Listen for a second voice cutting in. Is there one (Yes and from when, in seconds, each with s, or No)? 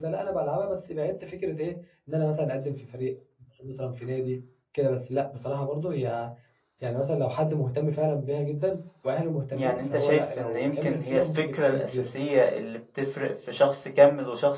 Yes, from 9.5 s